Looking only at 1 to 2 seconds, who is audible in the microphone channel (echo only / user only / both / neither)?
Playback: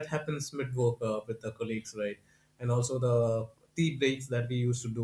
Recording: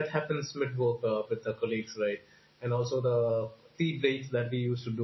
echo only